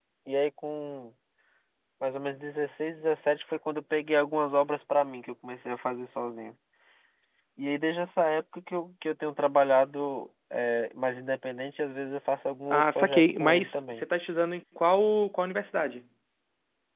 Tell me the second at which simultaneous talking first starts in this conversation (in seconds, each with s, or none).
12.7 s